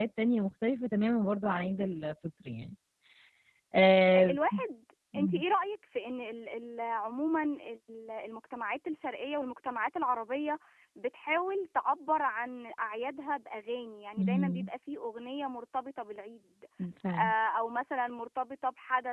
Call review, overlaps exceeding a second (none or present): none